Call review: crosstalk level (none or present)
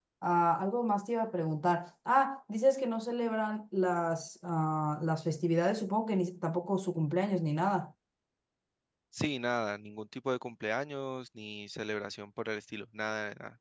none